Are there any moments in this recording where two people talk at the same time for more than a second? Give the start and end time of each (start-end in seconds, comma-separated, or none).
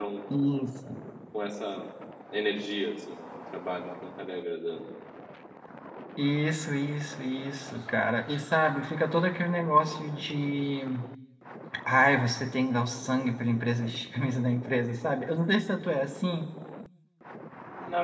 none